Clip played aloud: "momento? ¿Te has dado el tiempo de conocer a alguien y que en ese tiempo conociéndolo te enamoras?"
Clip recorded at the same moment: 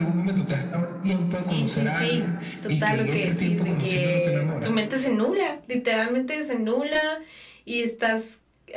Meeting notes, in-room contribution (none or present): present